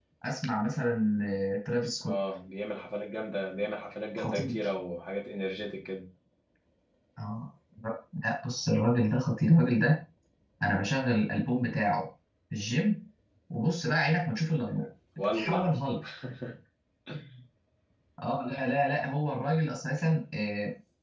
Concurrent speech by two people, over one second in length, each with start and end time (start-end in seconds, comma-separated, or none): none